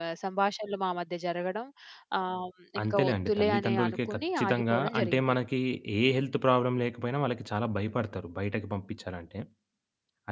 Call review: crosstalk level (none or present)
present